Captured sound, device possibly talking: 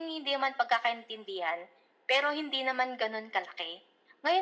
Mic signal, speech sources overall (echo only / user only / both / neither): echo only